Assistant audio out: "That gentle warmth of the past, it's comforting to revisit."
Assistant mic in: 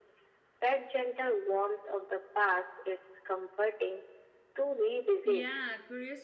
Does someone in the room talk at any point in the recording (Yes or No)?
Yes